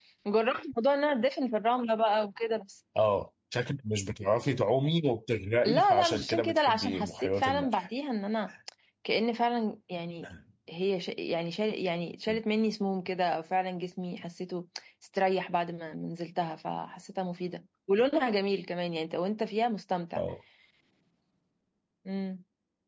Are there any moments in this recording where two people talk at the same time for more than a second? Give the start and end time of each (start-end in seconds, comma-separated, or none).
5.6-7.9